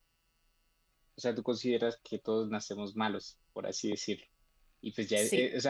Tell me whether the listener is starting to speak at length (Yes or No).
No